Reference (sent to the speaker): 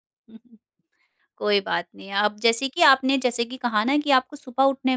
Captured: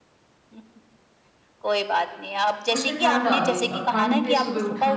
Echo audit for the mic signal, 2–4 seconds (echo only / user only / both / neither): both